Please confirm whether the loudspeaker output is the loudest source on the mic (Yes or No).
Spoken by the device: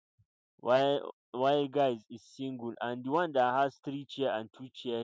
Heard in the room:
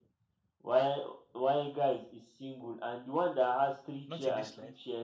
Yes